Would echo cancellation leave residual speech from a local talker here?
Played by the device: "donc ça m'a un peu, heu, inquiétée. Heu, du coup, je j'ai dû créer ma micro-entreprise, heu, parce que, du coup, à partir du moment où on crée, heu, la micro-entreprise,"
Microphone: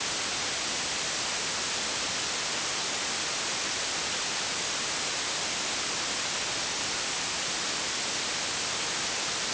No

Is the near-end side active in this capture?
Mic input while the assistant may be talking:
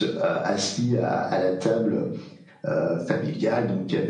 No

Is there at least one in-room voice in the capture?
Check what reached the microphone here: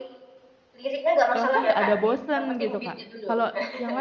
Yes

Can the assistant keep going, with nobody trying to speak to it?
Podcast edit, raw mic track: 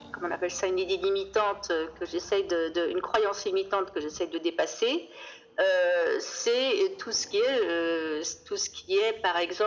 Yes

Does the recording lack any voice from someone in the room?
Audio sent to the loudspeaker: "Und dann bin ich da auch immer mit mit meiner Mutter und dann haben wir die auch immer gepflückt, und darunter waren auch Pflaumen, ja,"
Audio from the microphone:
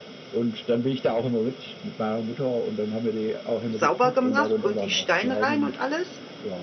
No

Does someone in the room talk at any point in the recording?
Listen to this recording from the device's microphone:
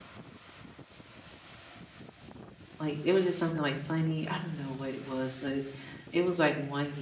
Yes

